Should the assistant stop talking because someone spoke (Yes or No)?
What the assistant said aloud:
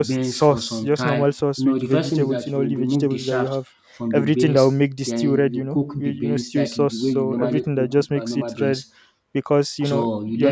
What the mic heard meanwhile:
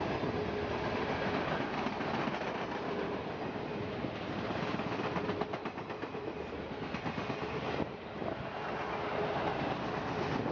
No